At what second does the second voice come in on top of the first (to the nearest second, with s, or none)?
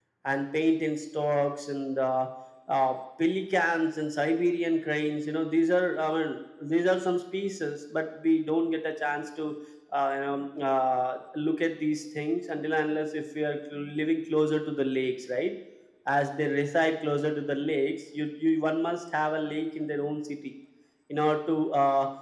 none